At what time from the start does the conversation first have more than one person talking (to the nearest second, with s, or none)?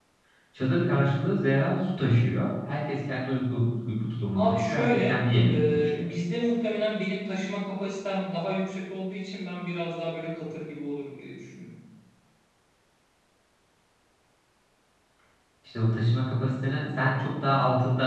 4 s